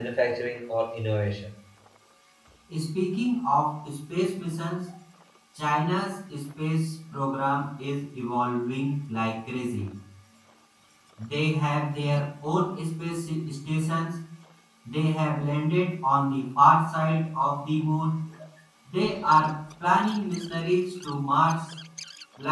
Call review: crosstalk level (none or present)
none